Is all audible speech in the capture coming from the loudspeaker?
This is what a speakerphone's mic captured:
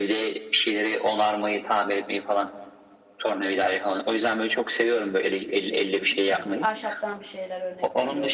No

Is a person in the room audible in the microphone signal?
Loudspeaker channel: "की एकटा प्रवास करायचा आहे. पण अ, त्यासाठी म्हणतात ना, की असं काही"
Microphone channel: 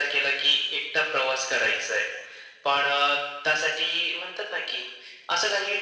No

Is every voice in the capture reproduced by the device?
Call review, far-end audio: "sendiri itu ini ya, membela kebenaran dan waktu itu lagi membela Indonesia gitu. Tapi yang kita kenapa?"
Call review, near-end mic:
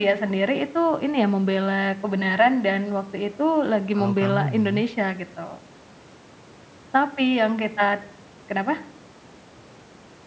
No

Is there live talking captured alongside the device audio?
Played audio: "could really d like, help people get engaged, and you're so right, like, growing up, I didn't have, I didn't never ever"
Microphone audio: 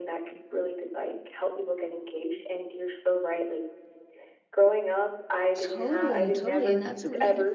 Yes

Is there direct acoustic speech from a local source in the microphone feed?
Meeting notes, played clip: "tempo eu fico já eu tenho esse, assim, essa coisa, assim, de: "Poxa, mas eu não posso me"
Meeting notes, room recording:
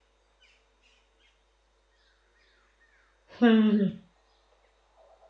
Yes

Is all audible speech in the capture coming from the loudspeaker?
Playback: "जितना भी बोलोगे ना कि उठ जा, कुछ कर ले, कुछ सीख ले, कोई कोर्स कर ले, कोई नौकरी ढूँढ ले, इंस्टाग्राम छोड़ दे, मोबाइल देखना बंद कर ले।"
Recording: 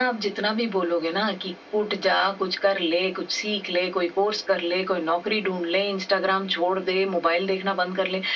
Yes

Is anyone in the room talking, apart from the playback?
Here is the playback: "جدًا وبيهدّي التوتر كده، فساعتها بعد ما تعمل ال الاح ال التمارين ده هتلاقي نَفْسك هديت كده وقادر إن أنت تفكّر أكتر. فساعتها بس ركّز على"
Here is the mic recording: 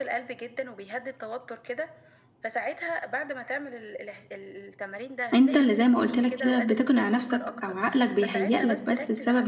Yes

